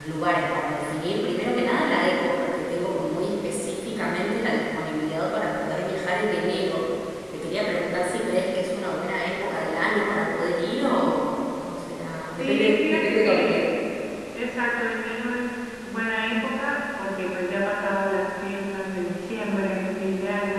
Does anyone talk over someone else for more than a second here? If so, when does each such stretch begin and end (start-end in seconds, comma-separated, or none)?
12.4-13.6